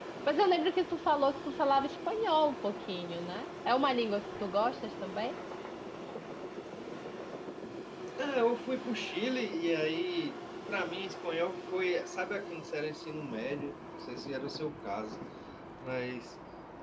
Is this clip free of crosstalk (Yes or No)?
Yes